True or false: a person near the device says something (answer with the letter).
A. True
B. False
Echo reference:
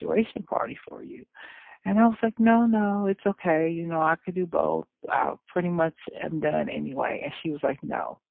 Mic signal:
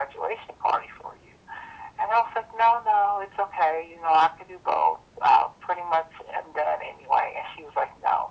B